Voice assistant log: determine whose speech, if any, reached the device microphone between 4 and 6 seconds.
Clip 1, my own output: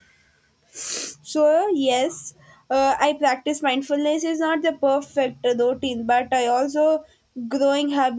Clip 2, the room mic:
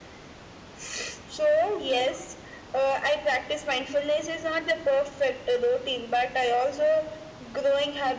echo only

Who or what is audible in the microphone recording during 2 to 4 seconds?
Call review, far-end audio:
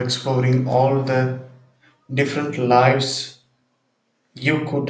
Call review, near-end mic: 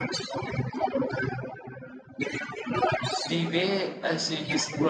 both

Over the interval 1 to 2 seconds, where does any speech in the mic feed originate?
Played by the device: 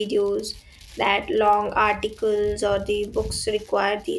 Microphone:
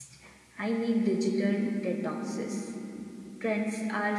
user only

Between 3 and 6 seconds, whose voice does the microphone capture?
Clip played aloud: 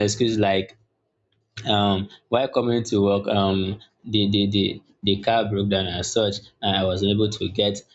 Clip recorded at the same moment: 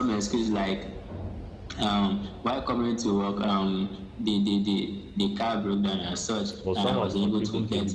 echo only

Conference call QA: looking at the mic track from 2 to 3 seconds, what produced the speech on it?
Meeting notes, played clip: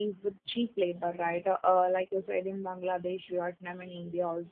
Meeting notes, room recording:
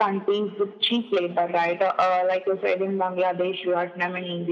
echo only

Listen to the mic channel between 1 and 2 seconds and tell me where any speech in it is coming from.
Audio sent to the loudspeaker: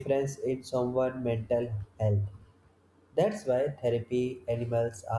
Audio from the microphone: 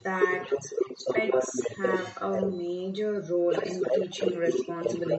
both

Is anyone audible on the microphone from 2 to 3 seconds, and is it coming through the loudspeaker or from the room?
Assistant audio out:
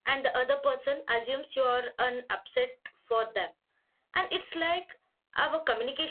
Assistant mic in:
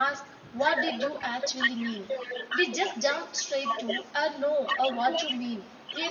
both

